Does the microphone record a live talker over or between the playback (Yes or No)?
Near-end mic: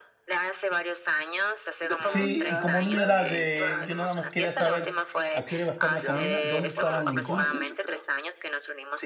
Yes